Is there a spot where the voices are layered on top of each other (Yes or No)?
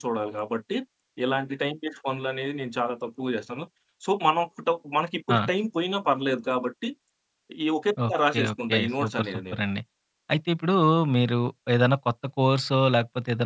Yes